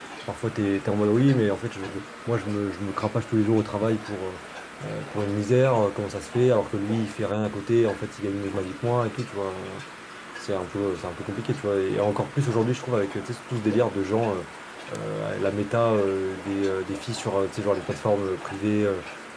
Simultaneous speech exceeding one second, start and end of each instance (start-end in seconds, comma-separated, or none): none